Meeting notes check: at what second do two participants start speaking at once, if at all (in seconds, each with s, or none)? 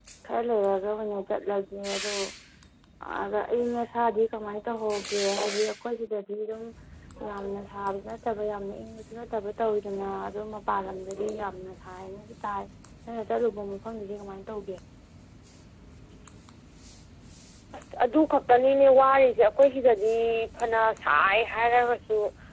none